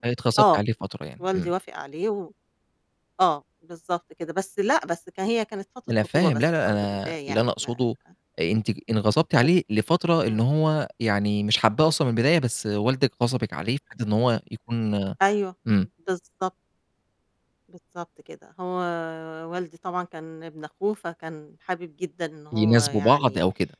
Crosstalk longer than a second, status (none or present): present